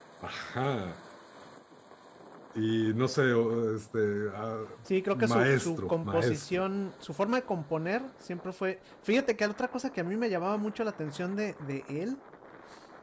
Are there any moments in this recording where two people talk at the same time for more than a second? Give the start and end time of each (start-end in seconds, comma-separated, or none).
5.1-6.6